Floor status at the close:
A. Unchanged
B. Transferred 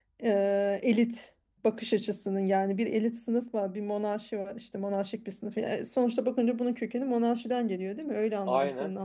A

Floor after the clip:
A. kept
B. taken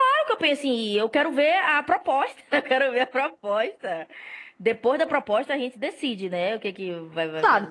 B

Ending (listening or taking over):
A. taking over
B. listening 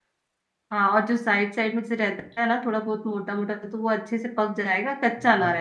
A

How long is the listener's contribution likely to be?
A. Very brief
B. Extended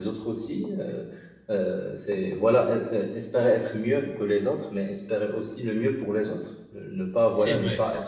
A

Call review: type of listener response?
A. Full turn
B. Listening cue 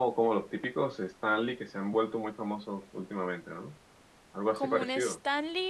A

